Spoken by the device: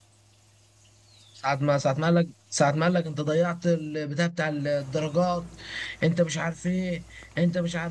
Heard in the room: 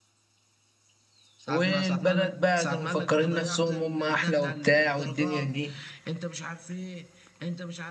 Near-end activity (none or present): present